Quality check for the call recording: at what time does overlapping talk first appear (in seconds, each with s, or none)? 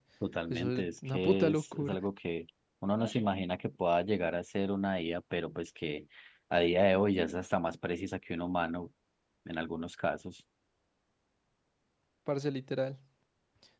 0.5 s